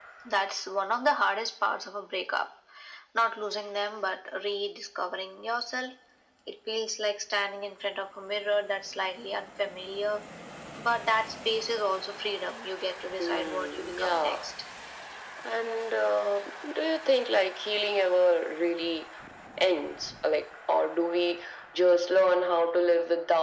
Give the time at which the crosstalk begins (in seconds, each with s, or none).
13.2 s